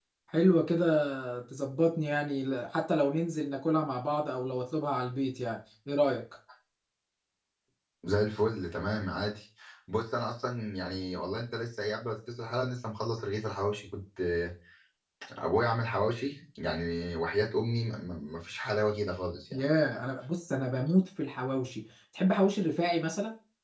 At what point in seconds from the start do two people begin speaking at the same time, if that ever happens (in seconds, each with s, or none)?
none